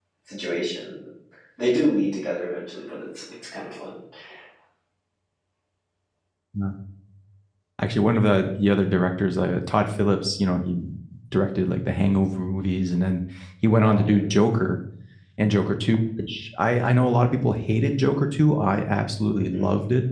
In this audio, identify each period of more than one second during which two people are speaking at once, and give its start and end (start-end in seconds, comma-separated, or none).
none